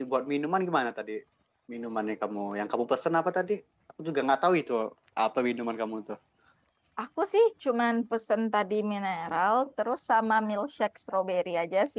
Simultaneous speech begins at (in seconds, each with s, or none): none